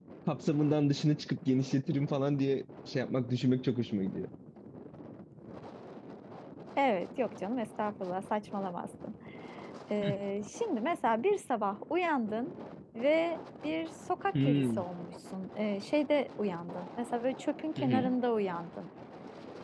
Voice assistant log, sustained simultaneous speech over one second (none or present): none